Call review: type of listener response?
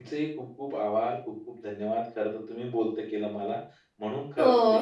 listening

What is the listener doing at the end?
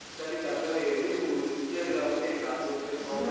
taking over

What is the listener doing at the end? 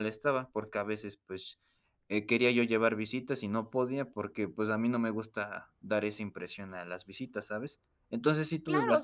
taking over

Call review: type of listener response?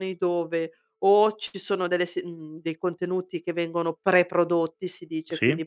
listening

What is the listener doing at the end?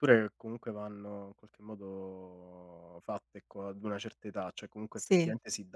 listening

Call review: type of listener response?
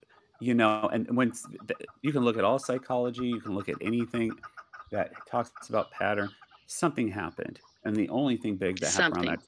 listening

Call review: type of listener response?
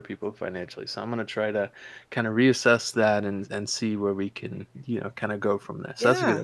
taking over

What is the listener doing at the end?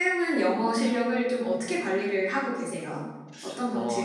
taking over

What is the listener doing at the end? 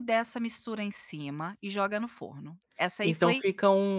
taking over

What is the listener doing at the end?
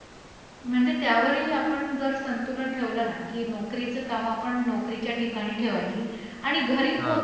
listening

